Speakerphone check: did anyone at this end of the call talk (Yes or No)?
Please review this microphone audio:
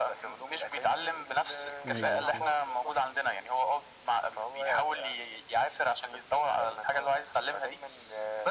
Yes